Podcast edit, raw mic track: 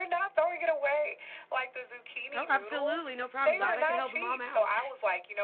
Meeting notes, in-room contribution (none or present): present